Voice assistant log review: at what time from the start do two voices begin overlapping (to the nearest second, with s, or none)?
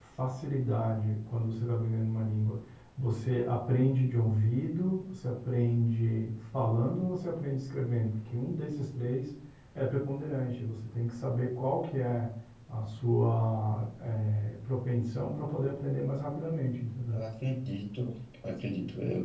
none